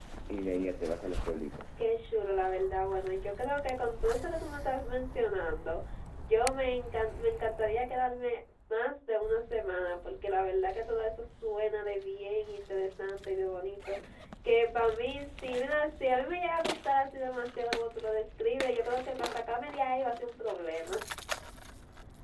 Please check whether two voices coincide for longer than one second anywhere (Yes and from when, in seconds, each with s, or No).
No